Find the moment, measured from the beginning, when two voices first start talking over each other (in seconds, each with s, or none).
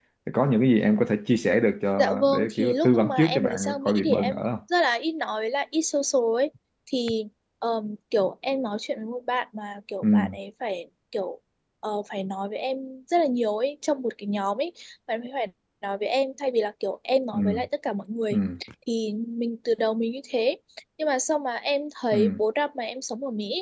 2.0 s